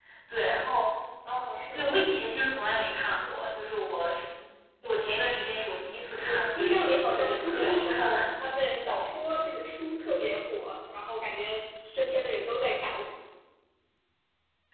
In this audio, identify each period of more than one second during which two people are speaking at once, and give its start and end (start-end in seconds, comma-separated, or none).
6.2-8.2